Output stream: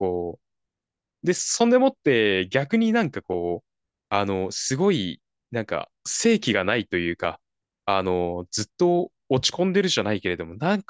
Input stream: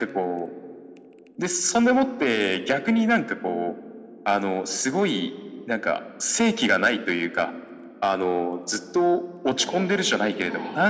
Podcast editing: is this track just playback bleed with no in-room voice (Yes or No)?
No